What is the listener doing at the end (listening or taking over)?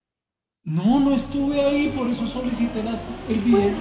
taking over